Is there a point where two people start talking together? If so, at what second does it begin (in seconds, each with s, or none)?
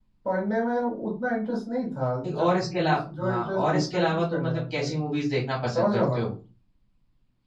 2.5 s